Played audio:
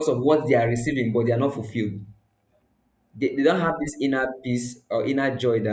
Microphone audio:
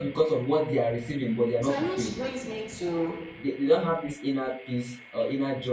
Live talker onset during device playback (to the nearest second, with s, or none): 2 s